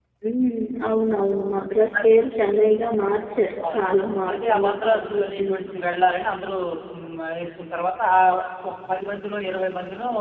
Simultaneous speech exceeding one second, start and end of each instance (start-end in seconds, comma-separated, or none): 4.3-5.6